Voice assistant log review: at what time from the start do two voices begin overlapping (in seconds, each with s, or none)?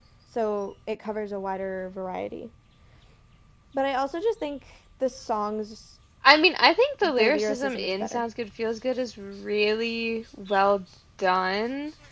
7.0 s